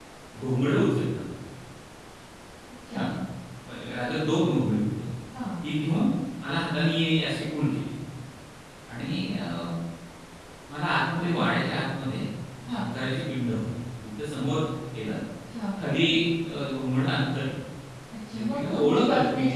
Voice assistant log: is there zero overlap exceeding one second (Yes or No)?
No